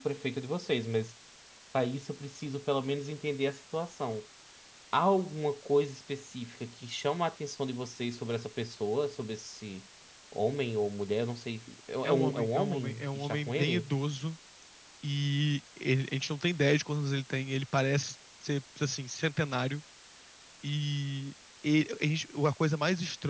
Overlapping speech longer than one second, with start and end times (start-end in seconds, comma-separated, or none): 12.0-13.9